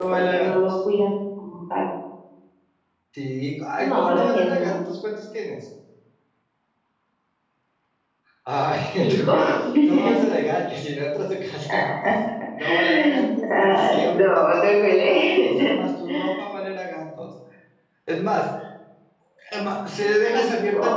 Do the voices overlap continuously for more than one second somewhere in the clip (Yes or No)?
Yes